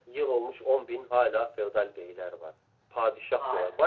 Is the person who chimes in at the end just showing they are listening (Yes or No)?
Yes